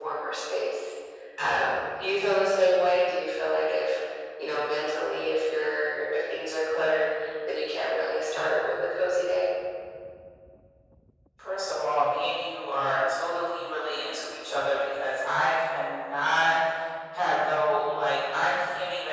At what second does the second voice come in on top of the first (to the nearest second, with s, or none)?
none